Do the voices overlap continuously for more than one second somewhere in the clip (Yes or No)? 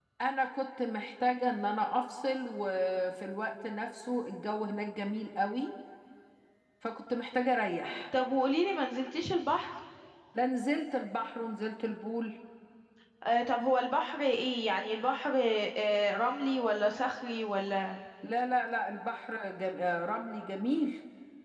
No